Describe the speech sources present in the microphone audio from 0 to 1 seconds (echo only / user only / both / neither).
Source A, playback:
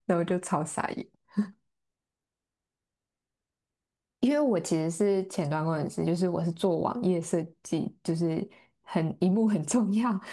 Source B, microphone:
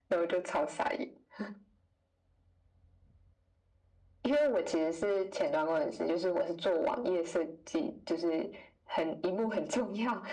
echo only